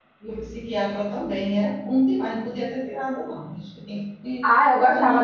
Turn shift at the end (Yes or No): Yes